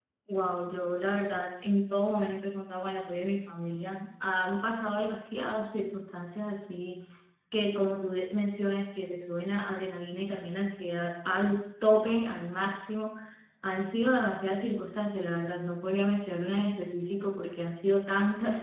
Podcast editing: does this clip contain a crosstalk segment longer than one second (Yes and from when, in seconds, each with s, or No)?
No